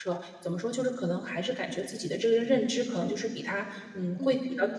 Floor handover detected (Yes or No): Yes